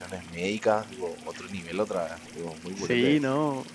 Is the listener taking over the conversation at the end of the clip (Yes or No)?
Yes